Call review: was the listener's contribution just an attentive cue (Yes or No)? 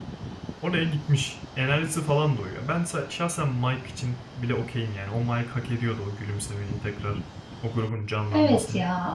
No